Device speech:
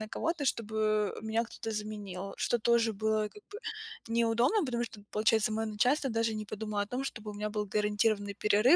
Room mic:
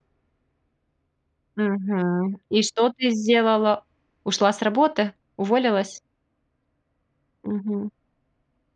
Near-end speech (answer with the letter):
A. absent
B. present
B